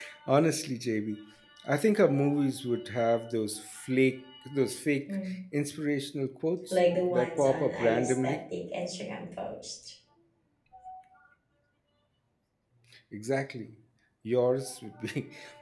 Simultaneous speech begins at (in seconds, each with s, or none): 6.7 s